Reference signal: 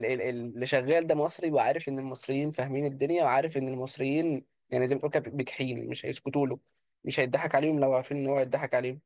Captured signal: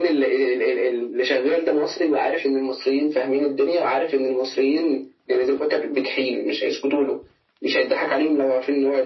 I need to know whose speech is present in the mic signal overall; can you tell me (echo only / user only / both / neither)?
echo only